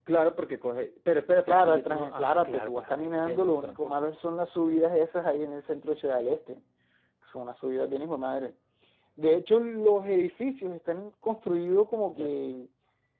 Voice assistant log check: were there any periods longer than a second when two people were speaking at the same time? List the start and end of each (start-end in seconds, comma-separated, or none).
1.5-4.0